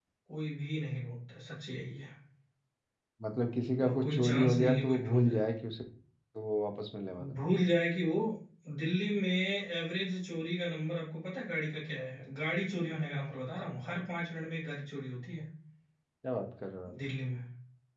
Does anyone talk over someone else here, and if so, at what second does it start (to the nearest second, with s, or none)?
4 s